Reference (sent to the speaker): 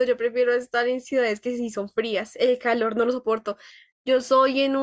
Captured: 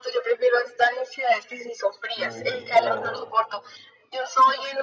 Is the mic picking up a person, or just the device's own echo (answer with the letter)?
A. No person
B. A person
B